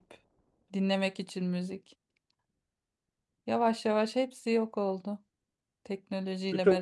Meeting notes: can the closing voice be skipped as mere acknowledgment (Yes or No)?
No